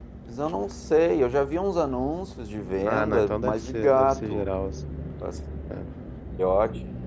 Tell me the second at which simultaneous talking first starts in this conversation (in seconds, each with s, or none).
2.8 s